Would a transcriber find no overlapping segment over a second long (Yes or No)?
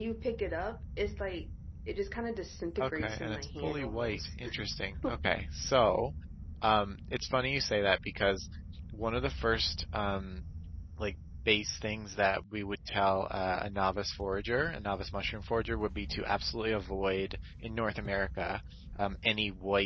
No